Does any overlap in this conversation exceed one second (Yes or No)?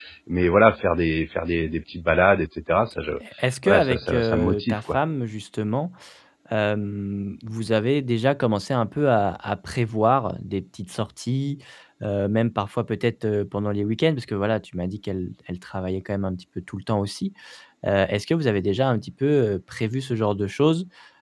Yes